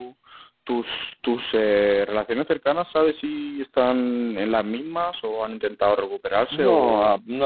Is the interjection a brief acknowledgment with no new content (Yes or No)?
No